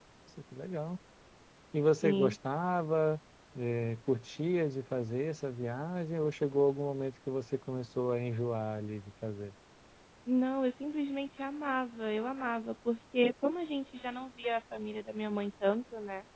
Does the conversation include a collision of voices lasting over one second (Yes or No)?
No